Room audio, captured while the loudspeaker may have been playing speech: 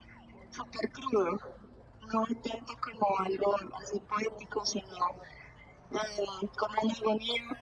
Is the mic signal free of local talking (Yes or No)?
Yes